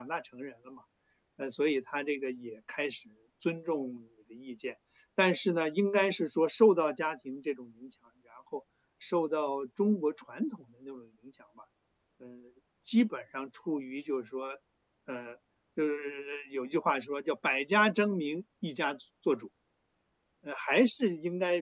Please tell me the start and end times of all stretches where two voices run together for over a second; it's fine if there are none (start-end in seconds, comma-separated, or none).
none